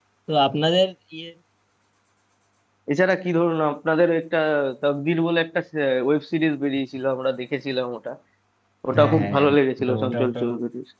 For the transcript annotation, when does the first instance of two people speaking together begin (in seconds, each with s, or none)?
9.0 s